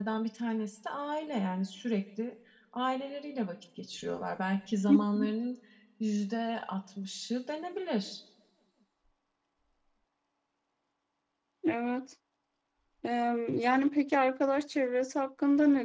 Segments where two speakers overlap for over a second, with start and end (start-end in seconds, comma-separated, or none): none